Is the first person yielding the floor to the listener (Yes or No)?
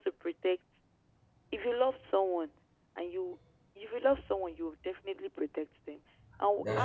No